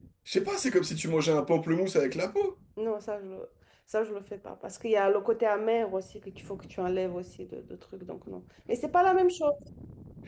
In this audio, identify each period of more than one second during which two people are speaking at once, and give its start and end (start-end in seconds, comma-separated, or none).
none